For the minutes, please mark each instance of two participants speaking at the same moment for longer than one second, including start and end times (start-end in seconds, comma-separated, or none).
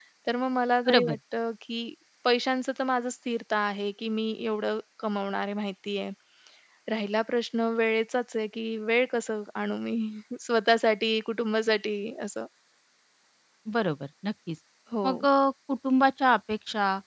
none